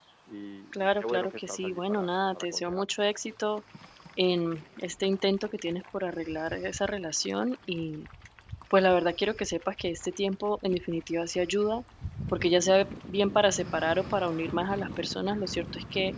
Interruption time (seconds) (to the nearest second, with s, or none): 1 s